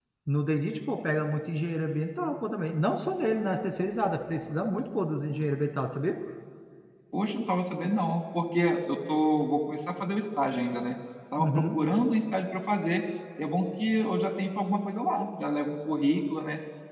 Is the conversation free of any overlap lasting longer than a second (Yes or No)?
Yes